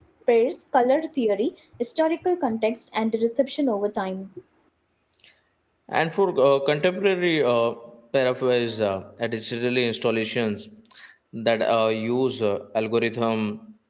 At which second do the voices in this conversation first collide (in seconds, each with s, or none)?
none